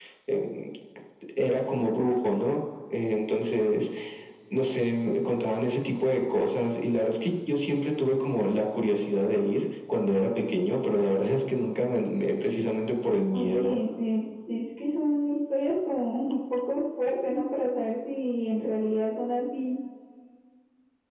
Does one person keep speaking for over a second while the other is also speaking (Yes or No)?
No